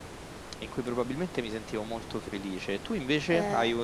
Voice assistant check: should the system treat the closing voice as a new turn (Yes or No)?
No